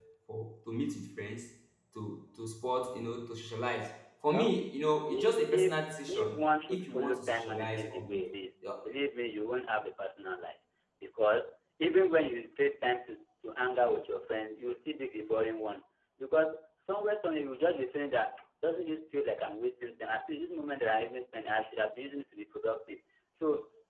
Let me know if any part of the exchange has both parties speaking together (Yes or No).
Yes